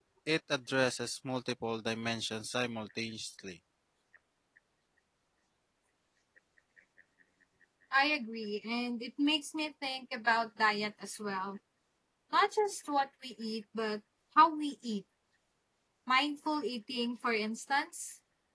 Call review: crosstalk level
none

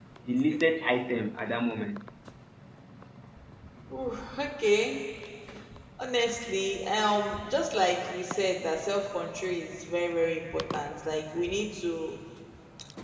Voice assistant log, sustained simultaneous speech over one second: none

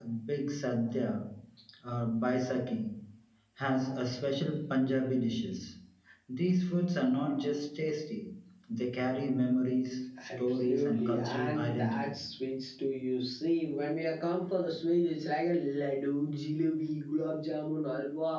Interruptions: present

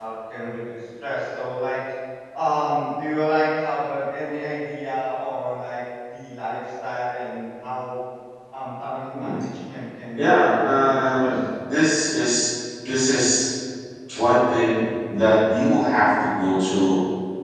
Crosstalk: present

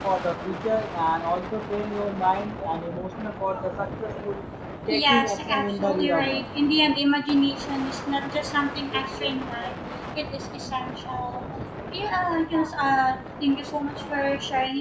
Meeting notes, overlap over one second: present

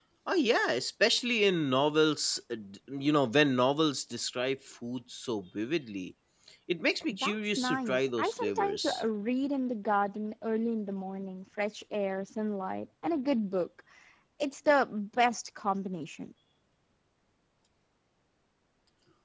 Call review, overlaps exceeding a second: present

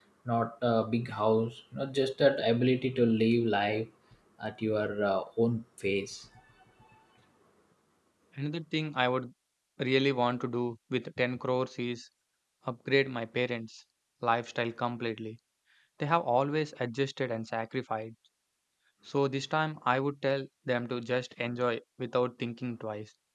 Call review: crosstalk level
none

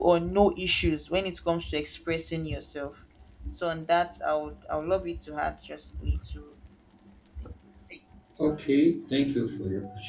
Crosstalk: none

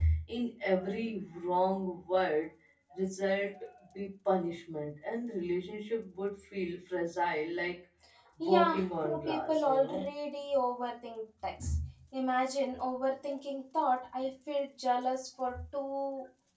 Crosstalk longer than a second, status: present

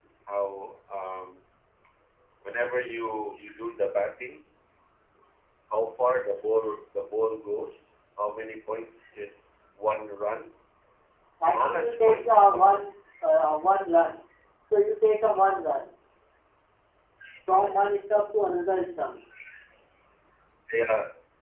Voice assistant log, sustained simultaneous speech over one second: present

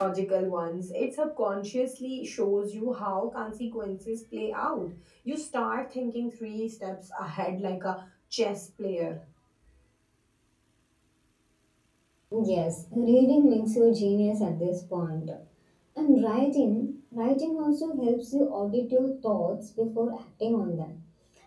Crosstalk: none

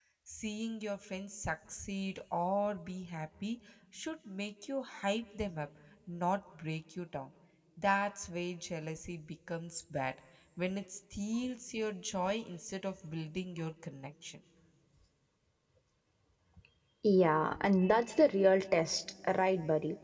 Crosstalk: none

